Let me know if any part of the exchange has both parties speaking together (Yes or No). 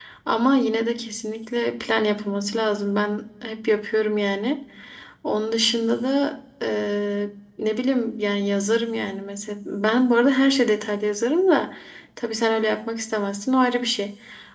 No